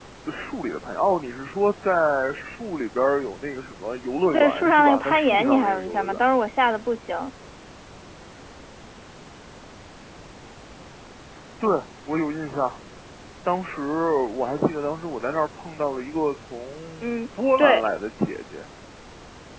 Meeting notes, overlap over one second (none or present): present